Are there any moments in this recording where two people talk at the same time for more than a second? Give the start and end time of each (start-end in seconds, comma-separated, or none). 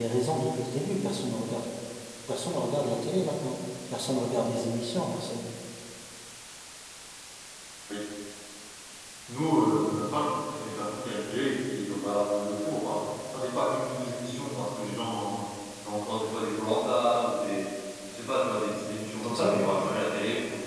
none